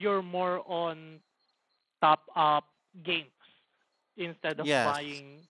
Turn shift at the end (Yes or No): No